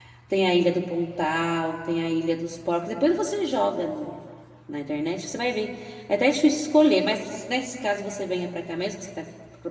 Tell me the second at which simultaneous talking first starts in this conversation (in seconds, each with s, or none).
none